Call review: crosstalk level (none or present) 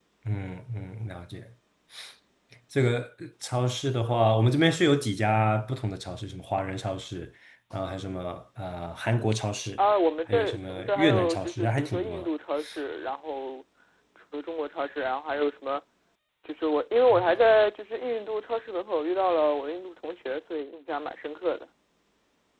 present